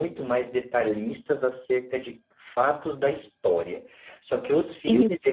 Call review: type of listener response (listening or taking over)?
listening